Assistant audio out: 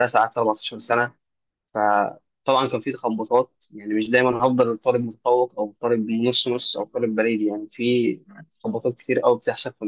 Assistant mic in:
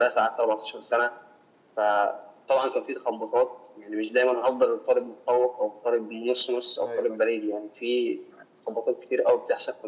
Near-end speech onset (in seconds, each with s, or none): 6.8 s